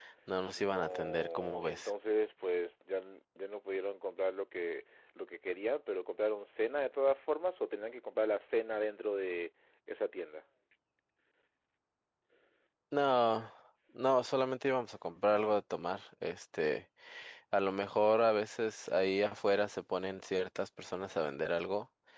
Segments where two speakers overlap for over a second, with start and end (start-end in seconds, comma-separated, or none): 0.6-1.9